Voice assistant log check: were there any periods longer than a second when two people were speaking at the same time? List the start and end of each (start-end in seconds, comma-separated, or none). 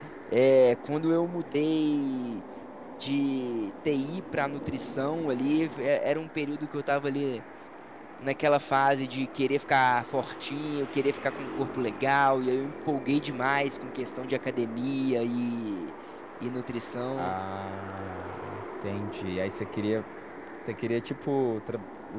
none